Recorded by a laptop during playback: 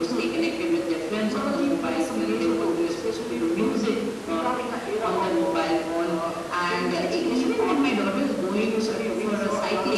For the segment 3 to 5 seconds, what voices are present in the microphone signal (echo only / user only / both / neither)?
echo only